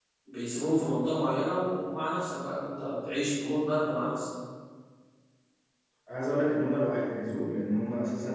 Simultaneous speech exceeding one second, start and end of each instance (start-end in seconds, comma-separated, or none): none